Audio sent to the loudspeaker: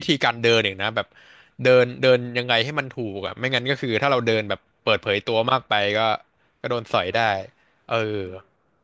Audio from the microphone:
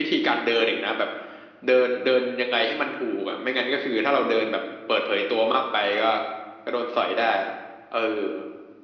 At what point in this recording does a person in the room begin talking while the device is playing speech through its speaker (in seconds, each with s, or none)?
none